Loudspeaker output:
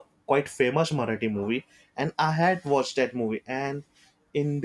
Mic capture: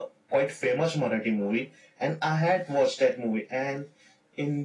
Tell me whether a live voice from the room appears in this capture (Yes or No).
No